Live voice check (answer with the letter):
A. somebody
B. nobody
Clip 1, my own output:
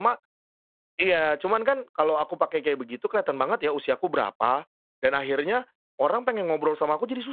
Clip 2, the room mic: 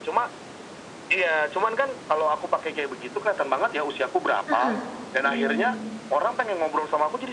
A